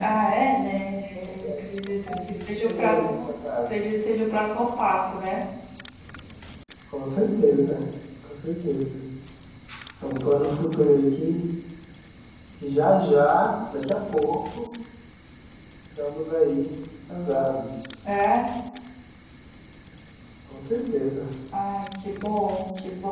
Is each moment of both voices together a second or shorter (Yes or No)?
No